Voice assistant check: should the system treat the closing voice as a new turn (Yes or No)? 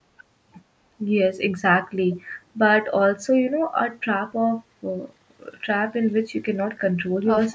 Yes